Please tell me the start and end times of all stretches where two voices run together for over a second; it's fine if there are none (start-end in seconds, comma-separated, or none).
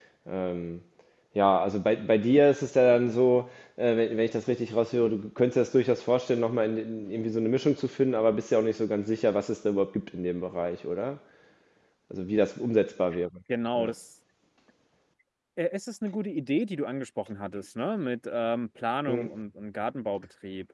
none